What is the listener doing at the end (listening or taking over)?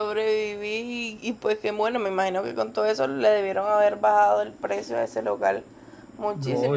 taking over